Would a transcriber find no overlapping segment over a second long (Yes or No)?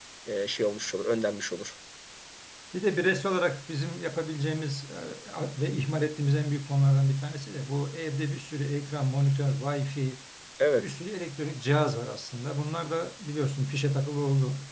Yes